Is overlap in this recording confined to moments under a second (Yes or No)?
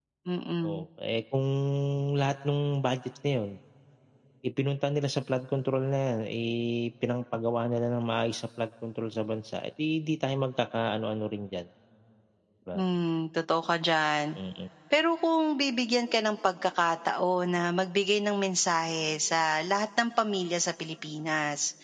Yes